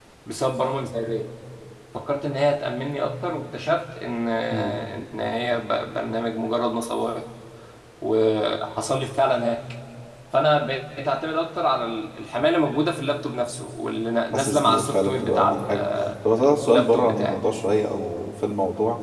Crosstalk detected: Yes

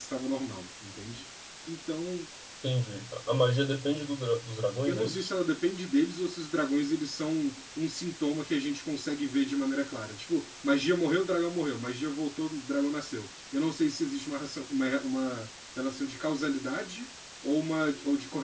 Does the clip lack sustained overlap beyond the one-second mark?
Yes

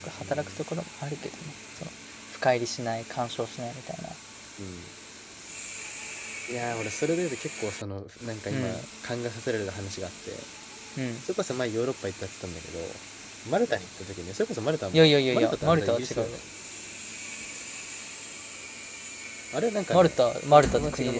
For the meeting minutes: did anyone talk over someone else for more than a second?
Yes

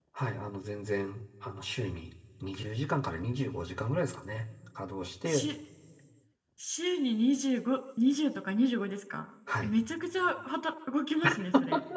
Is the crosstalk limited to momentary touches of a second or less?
Yes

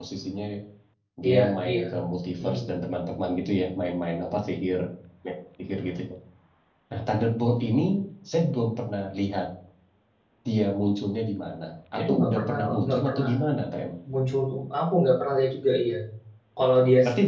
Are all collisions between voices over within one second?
No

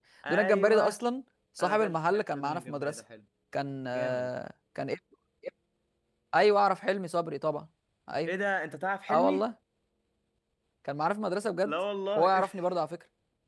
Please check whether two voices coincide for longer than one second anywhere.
Yes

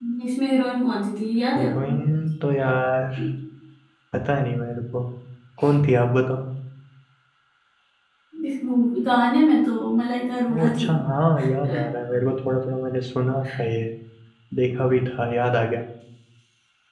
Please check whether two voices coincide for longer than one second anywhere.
No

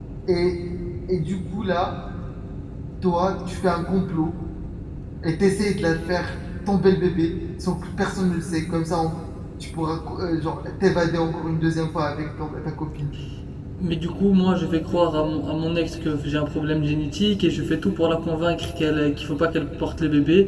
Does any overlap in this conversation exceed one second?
No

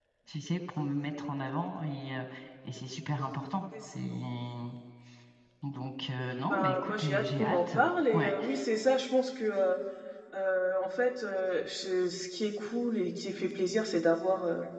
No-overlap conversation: No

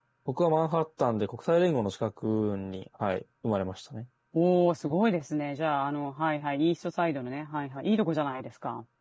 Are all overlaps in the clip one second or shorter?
Yes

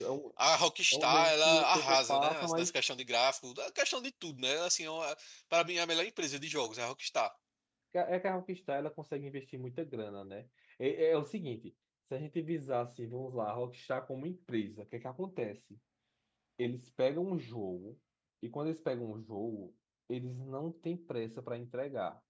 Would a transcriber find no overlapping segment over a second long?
No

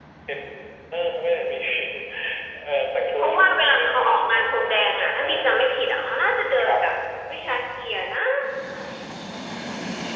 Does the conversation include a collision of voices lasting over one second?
Yes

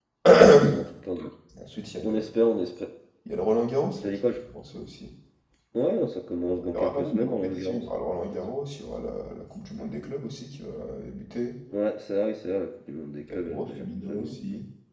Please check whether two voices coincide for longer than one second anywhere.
Yes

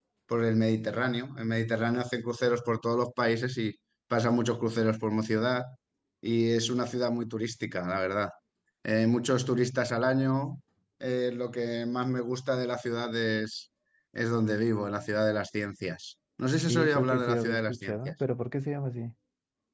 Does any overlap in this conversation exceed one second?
Yes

